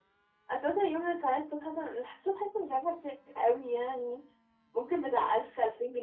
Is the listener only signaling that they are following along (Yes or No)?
Yes